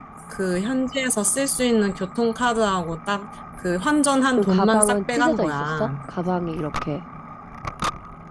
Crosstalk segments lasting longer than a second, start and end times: 4.4-5.9

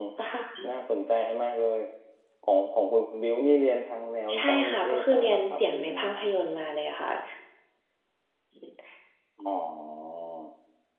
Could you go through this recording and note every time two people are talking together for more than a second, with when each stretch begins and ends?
4.3-6.3

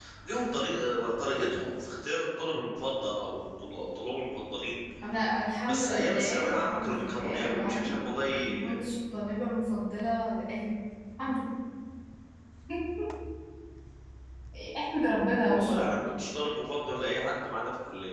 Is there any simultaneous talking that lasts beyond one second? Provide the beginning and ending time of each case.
5.7-8.0

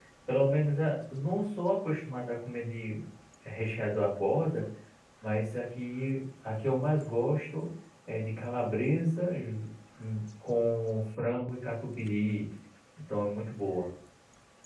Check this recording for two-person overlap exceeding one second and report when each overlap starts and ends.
none

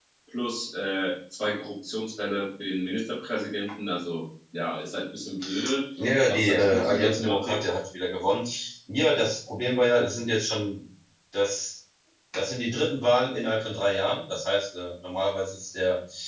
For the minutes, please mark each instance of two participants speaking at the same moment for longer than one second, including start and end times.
6.3-7.6

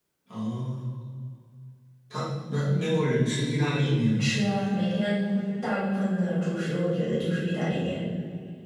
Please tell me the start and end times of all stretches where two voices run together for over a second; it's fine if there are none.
none

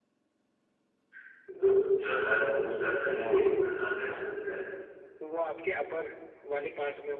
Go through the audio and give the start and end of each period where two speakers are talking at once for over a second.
none

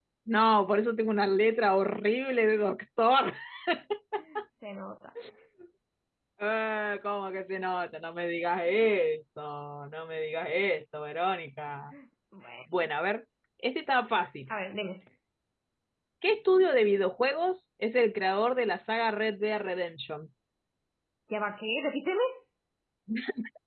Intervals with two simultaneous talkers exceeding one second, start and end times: none

